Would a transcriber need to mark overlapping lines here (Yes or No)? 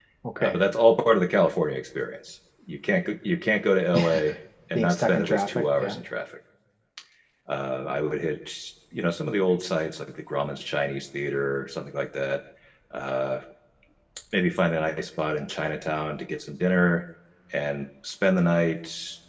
Yes